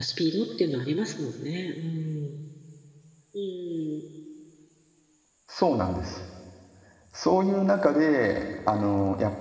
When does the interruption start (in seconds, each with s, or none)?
none